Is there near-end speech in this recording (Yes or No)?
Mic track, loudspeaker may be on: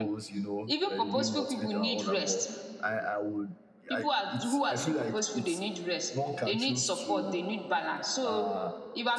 Yes